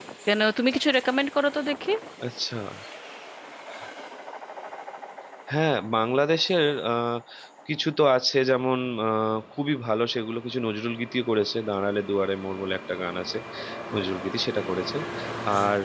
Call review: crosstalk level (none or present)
none